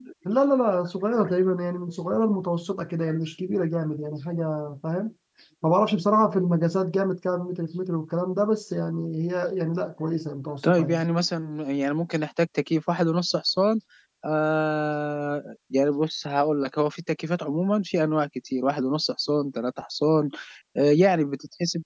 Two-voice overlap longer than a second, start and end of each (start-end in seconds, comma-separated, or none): none